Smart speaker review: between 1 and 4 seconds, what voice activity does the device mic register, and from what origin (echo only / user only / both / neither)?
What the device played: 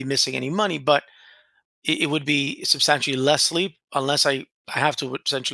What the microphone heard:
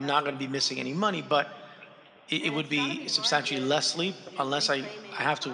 both